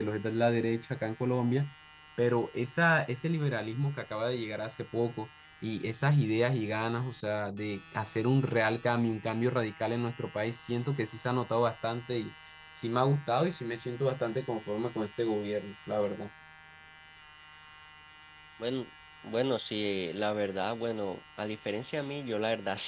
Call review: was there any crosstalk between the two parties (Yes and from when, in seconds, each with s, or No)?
No